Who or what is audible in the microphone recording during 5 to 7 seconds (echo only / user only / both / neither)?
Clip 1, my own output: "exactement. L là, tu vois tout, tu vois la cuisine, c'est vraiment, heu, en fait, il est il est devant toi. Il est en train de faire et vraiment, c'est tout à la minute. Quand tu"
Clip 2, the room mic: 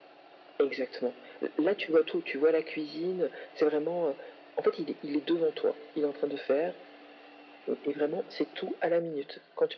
echo only